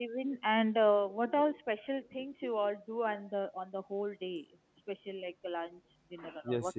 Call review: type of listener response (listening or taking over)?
taking over